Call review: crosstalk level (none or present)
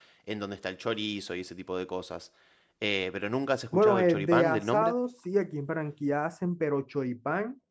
present